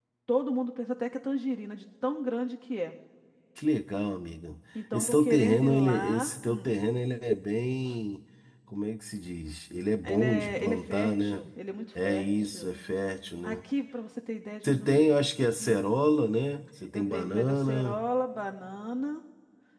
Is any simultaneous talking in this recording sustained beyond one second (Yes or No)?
Yes